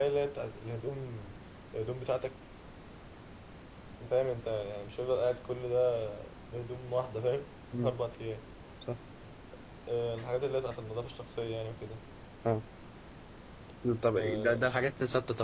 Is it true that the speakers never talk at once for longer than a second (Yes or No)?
Yes